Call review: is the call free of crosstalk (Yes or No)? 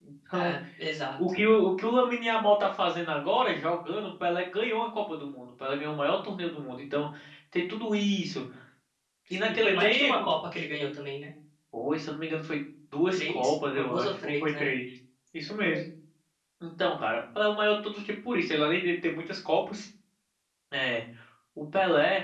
No